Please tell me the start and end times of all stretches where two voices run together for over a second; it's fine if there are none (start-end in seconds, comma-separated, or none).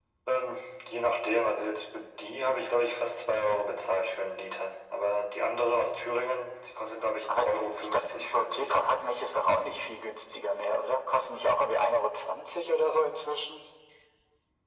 7.3-8.9